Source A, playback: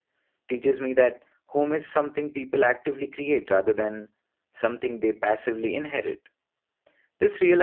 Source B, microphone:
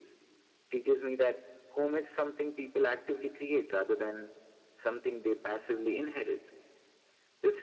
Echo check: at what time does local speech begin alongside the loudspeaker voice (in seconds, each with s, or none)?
none